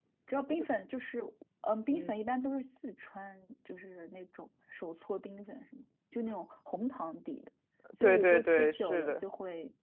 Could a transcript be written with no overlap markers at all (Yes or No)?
No